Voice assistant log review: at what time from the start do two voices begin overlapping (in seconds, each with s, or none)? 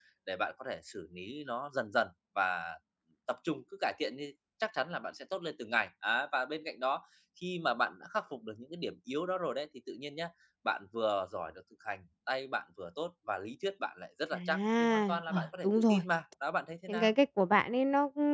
14.3 s